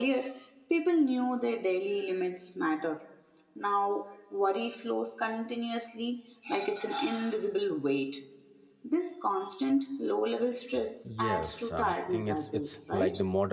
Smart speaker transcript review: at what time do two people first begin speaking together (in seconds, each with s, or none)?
11.0 s